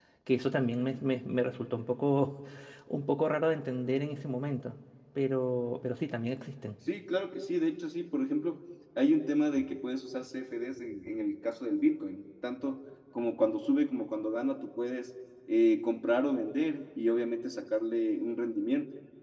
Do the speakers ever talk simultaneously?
No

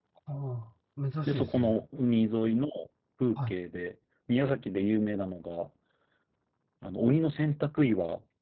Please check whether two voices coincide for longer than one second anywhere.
No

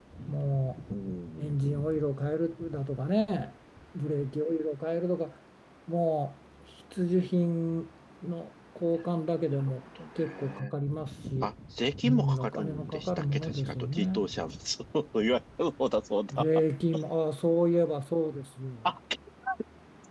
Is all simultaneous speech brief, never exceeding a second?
No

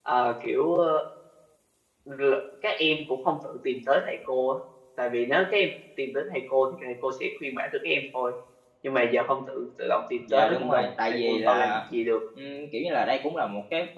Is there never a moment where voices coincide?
No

